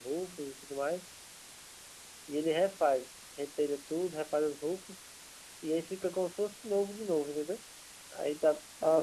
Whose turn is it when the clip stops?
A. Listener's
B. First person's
B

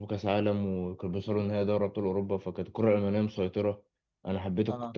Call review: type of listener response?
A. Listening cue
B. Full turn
A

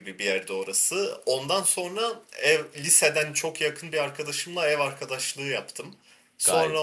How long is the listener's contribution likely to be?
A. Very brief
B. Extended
A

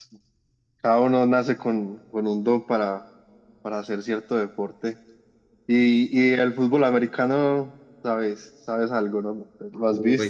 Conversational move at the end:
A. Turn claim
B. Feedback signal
A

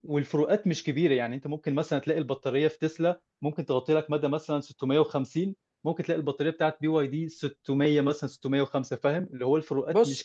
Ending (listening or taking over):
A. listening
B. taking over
B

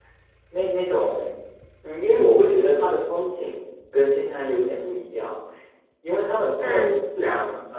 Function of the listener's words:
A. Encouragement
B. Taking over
A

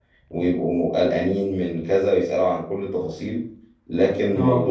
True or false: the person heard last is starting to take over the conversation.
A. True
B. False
B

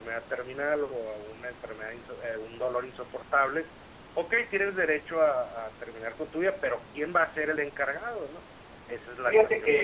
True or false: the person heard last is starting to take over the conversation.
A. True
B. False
A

